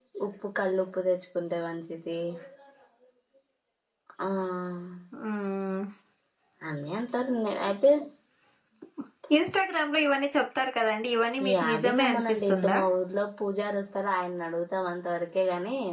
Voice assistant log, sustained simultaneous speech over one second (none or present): present